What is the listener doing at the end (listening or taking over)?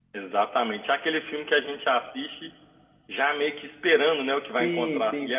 taking over